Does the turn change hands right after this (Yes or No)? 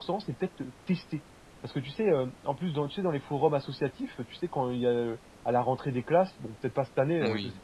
No